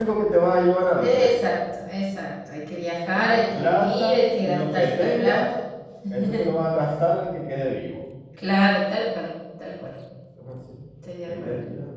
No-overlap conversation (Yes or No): No